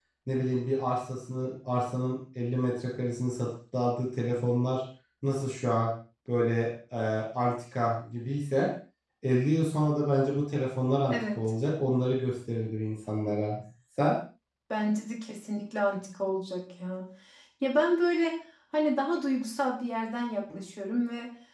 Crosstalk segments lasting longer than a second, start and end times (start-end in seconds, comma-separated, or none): none